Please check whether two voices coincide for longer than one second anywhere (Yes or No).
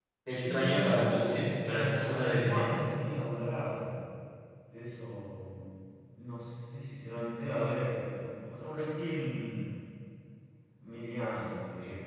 Yes